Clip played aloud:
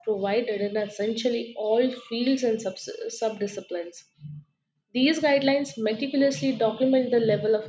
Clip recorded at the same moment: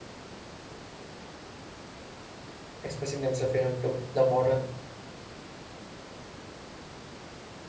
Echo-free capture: Yes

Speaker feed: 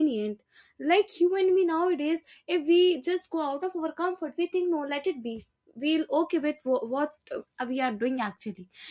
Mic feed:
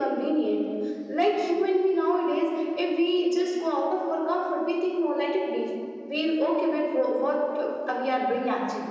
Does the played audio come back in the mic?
Yes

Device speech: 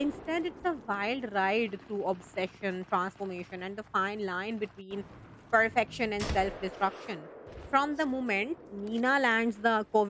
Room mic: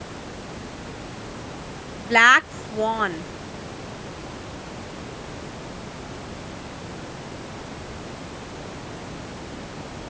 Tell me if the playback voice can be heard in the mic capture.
No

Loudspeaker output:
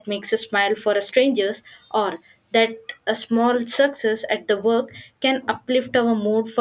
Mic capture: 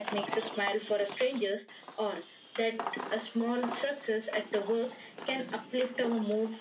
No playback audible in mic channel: No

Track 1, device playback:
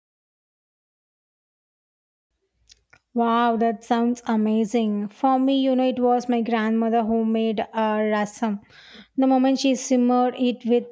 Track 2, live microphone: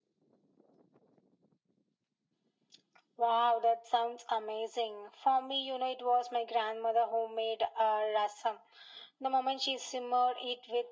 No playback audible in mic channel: No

